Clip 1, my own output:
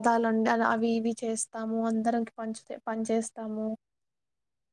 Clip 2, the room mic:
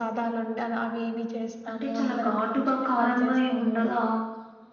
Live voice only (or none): అంటే చాలా ఘాటుగా కారంగా ఏమి ఉండదా